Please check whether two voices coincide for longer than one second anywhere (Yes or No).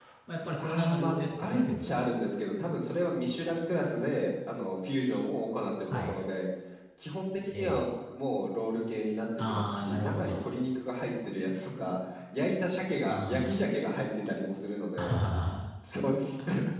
Yes